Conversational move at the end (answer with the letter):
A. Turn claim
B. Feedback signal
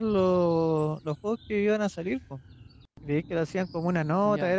B